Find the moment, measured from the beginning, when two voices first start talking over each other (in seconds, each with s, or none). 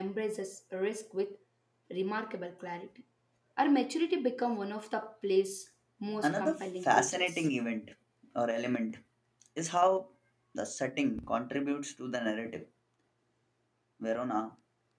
6.1 s